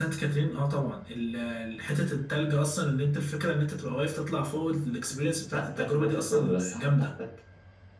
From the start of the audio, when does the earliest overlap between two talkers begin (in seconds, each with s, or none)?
5.5 s